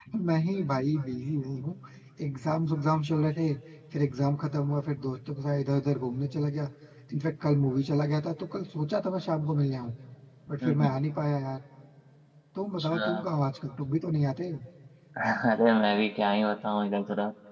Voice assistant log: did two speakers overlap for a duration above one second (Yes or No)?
No